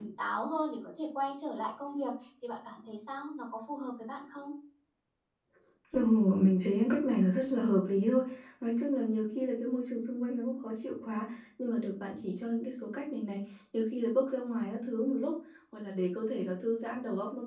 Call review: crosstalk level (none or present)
none